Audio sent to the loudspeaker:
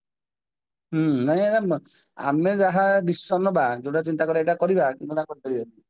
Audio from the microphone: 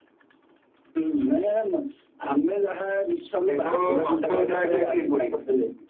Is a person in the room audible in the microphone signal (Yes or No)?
Yes